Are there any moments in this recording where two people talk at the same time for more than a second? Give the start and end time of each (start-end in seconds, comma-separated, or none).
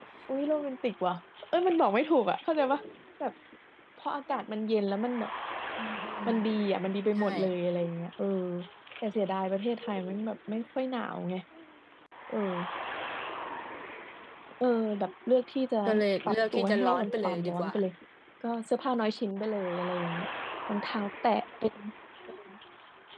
16.3-17.7